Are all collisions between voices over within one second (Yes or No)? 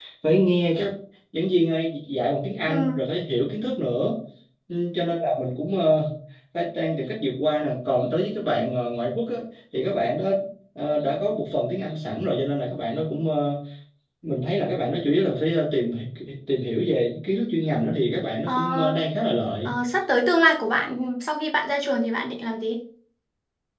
Yes